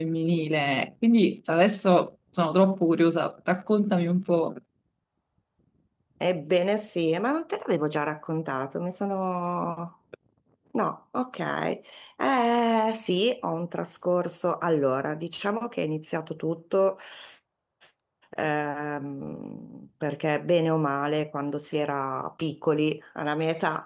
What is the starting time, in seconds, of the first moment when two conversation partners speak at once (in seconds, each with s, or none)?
none